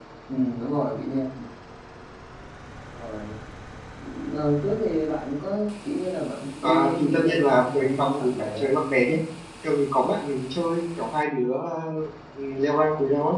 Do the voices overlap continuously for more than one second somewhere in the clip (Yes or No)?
Yes